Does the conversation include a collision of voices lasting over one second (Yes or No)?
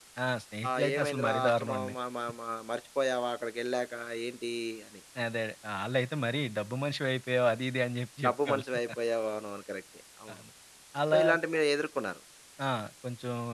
Yes